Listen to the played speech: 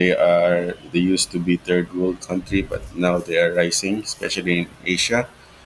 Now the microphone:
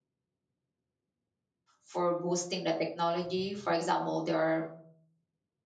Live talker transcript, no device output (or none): for boosting the technology for example there are